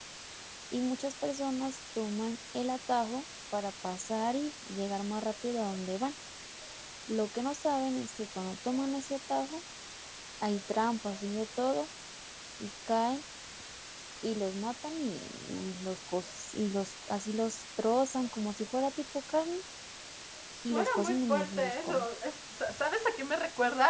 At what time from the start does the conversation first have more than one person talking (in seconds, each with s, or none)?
20.7 s